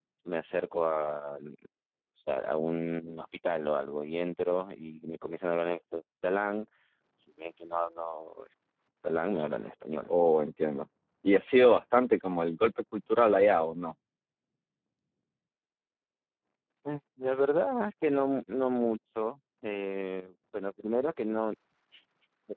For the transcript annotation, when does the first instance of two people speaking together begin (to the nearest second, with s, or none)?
none